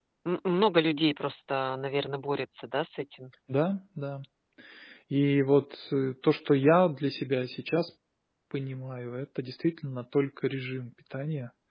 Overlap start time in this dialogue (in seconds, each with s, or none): none